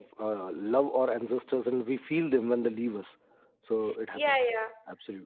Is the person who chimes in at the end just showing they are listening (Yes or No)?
No